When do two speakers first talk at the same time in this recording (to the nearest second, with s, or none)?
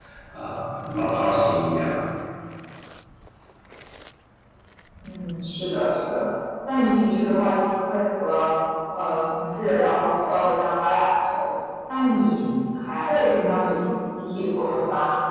none